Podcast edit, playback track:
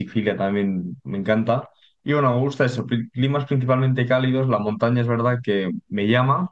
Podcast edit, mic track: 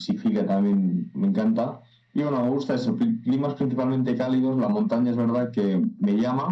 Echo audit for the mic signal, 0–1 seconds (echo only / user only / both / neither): echo only